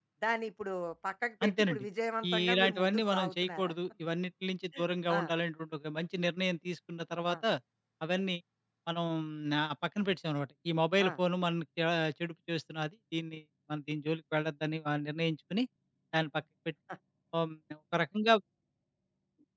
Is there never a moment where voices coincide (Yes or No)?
No